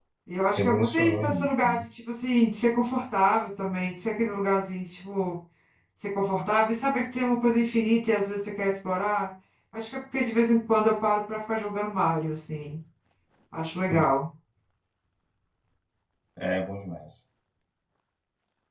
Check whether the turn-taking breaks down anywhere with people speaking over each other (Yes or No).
Yes